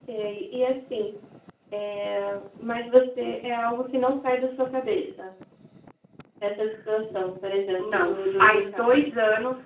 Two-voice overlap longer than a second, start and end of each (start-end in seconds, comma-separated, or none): 7.8-9.0